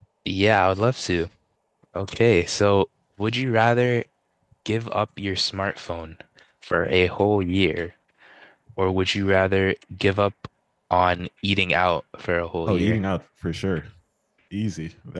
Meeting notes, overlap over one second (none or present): none